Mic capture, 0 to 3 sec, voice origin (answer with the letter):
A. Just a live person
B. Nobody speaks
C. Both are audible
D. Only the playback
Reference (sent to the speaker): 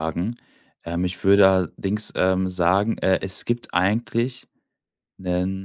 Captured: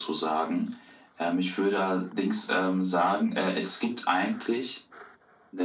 D